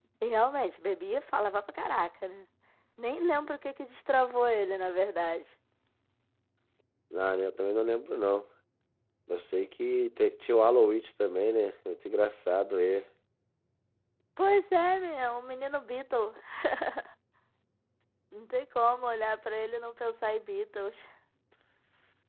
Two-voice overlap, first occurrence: none

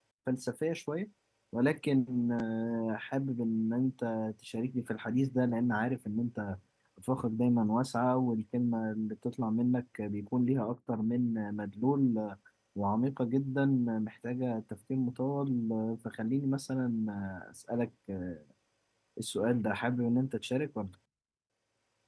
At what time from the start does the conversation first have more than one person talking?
none

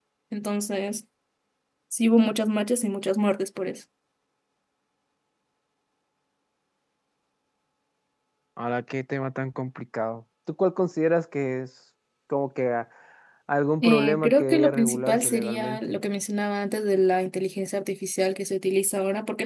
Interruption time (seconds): 13.8 s

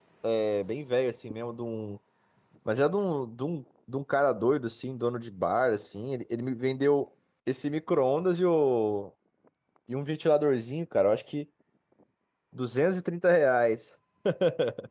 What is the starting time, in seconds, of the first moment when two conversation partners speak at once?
none

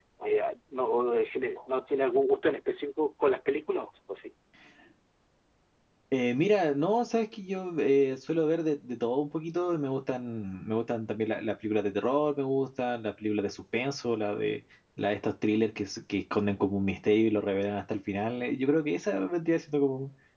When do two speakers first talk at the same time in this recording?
none

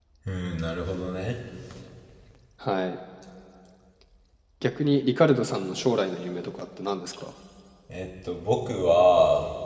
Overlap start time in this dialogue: none

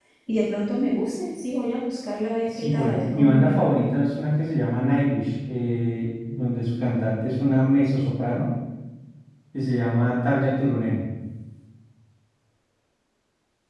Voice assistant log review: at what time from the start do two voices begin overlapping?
2.5 s

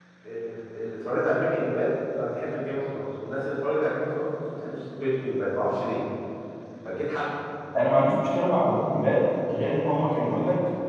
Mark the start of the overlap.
none

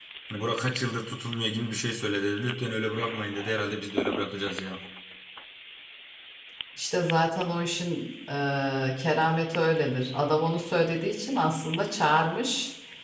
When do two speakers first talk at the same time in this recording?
none

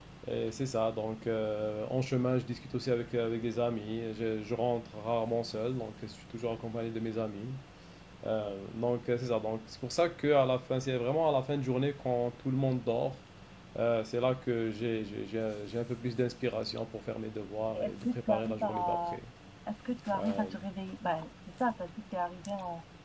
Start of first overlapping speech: 17.7 s

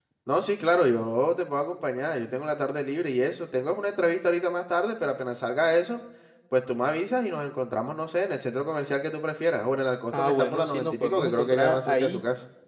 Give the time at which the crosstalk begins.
10.1 s

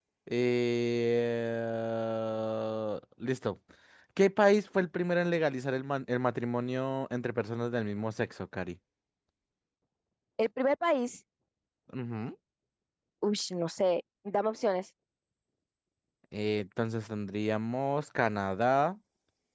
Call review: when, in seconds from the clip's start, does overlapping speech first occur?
none

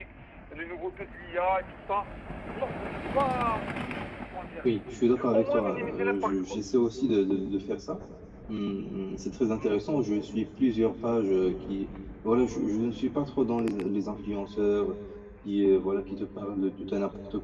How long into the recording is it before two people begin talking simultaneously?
5.1 s

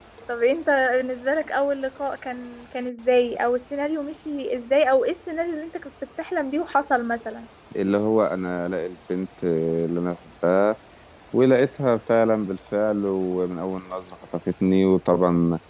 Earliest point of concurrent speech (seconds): none

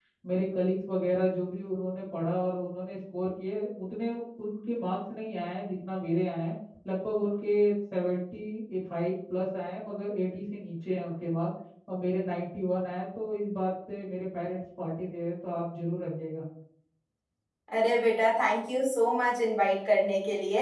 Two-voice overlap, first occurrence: none

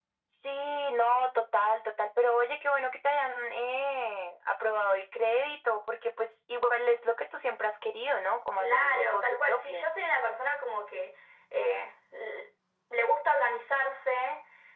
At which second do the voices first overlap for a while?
8.6 s

